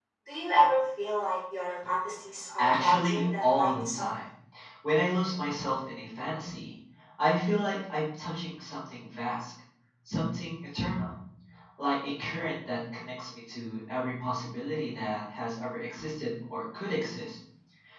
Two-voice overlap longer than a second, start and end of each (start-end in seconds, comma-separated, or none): 2.6-4.1